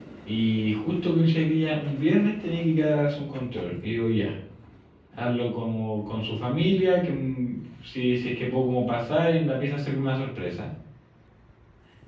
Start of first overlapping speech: none

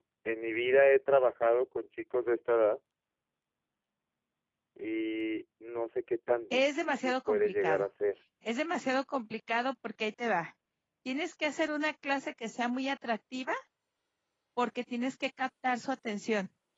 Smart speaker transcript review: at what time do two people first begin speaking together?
6.5 s

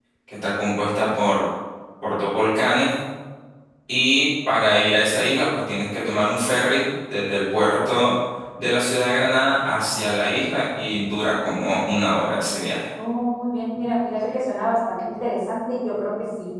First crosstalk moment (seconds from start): none

